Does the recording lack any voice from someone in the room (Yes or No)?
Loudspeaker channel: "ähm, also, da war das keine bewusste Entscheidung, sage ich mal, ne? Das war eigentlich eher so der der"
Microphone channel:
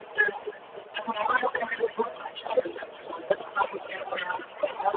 Yes